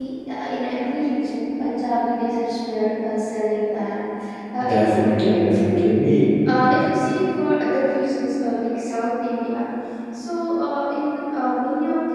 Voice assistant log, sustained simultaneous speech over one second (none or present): present